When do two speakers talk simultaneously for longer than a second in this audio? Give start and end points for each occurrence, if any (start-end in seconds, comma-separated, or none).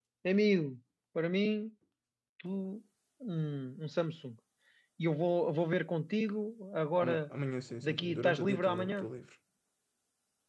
7.8-9.1